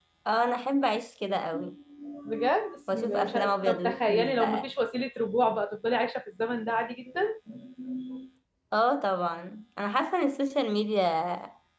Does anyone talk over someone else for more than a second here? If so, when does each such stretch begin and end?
2.9-4.7

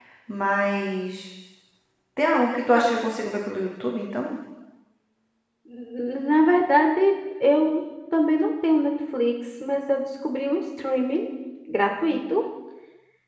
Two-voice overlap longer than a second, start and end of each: none

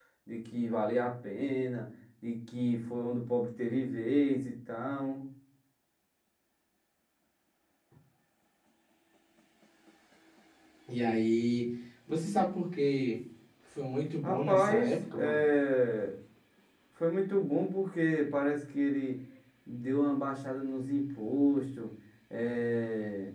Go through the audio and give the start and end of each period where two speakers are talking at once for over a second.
14.2-15.4

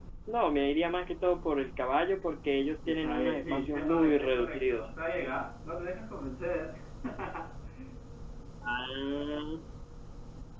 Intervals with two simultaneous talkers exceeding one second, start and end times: 2.9-4.9

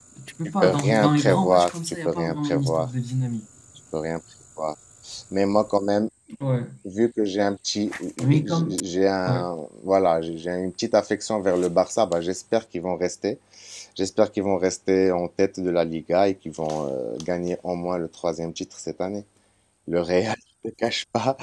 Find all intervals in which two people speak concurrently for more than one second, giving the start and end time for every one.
0.6-2.9

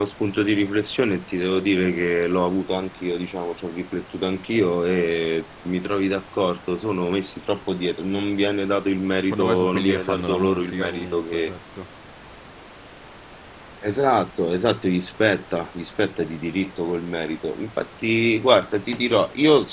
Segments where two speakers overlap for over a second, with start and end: 9.3-11.5

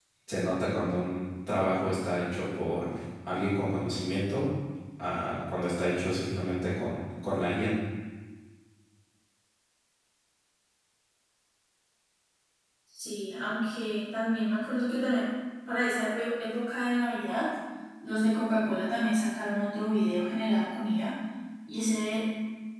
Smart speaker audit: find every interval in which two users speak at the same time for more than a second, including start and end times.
none

